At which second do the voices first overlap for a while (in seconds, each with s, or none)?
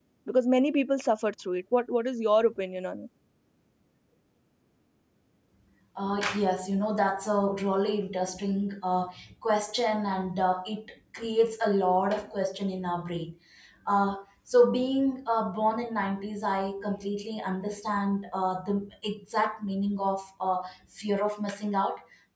none